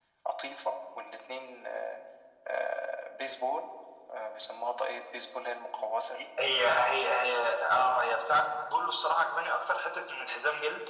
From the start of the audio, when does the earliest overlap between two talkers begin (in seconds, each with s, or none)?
none